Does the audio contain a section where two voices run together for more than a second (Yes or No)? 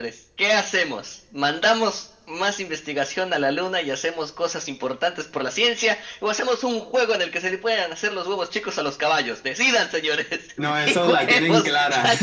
Yes